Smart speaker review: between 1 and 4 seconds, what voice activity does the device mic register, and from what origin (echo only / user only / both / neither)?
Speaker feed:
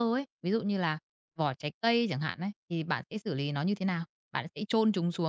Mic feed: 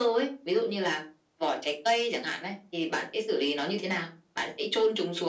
echo only